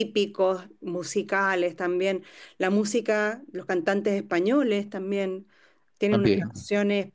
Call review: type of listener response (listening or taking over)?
listening